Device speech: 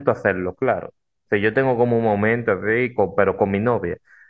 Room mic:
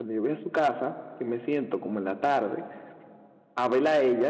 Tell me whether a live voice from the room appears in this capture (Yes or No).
Yes